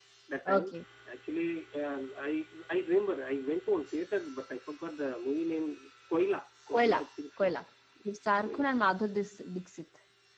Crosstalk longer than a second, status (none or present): none